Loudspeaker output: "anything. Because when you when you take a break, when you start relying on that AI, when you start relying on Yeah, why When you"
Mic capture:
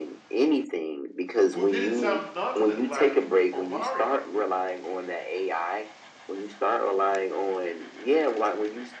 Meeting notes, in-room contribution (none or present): present